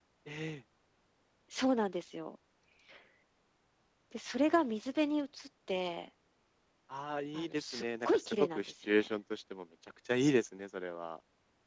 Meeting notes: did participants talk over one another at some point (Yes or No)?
Yes